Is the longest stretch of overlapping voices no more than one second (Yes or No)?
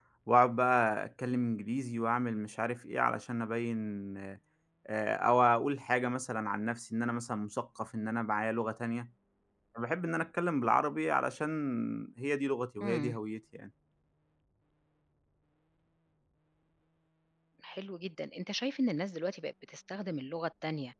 Yes